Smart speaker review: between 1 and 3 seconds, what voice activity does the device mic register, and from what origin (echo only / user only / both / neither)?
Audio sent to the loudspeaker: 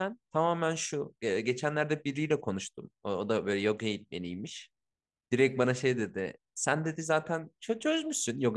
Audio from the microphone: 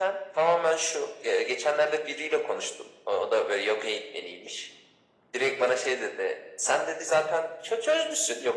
echo only